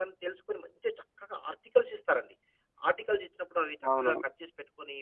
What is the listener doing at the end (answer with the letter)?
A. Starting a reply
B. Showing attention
B